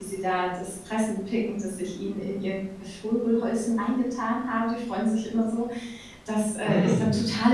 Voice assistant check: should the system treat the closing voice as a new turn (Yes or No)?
No